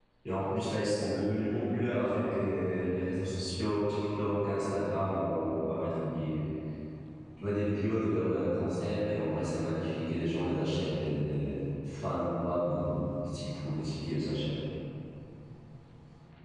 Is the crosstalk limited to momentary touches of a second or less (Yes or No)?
No